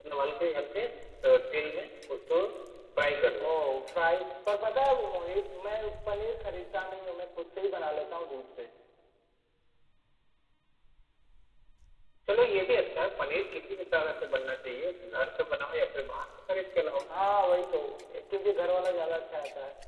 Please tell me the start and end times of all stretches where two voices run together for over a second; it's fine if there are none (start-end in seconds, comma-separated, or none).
none